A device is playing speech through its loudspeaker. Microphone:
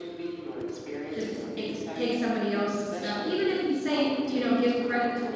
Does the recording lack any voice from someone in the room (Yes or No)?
No